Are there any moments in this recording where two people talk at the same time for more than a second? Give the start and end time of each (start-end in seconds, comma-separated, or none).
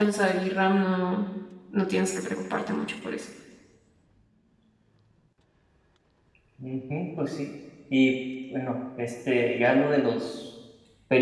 none